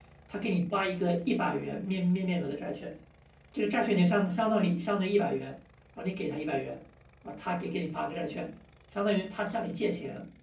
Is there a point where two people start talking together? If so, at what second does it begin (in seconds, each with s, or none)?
none